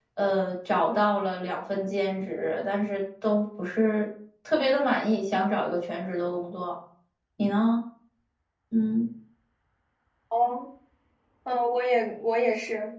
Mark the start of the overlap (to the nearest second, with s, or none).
none